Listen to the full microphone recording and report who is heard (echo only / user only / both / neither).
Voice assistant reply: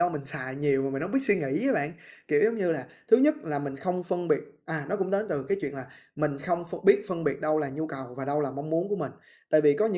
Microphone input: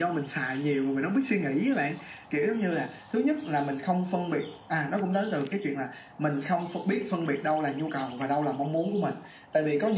echo only